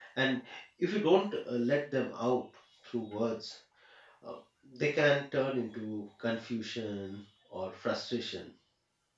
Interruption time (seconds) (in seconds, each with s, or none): none